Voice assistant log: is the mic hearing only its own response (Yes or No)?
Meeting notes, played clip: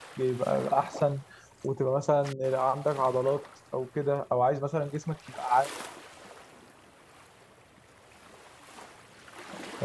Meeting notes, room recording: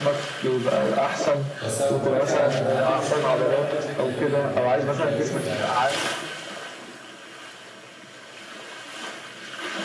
No